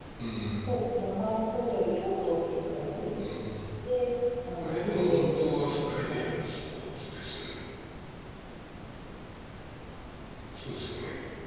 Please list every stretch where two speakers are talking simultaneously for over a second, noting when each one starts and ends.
4.6-6.4

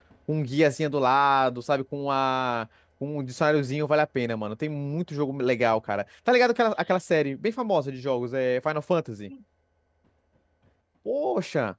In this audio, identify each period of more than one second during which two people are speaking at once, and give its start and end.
none

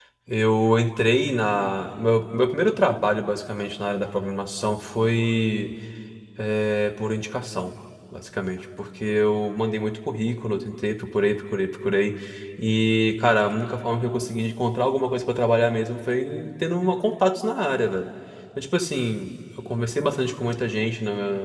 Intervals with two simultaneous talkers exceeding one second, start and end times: none

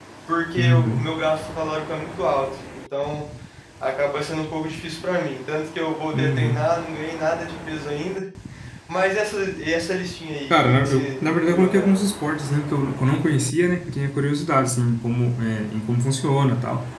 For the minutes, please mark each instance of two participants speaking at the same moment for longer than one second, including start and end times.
10.5-12.0

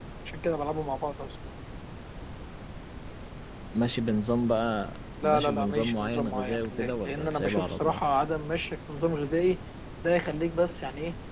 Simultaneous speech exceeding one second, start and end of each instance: 5.2-8.0

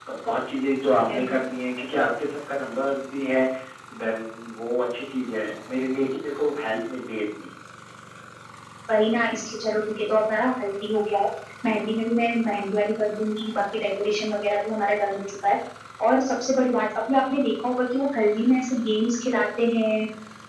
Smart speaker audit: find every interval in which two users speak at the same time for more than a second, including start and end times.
none

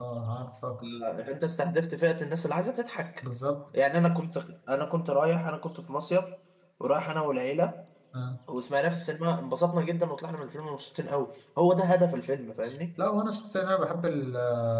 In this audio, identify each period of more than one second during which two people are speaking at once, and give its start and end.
none

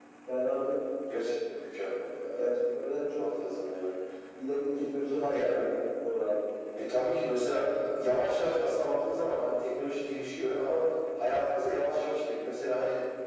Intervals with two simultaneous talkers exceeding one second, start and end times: none

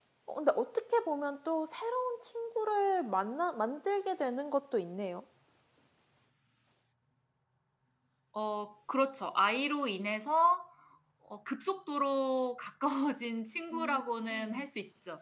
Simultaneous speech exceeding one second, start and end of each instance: none

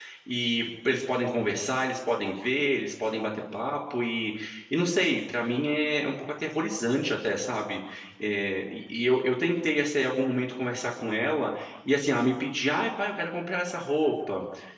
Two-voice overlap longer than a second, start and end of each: none

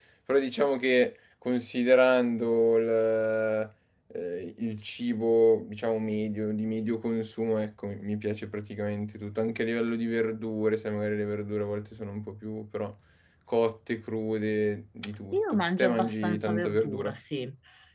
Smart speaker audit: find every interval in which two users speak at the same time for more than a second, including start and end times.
15.3-17.1

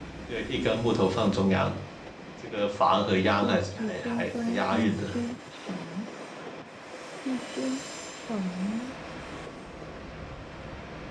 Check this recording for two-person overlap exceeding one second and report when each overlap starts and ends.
3.2-5.1

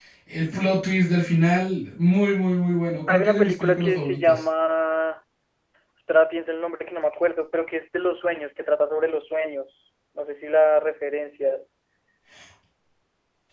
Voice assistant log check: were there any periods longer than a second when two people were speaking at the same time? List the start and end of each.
3.1-4.4

